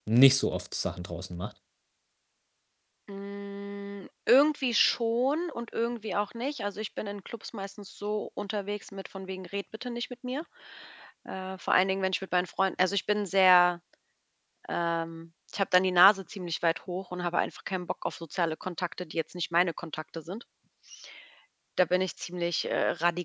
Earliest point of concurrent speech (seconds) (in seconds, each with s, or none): none